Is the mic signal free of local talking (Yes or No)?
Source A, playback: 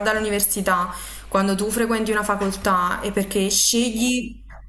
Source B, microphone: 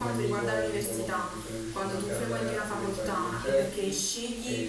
No